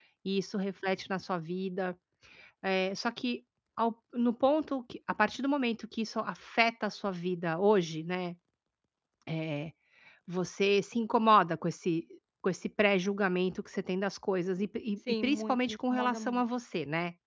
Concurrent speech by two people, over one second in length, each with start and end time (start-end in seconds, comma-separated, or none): 15.2-16.4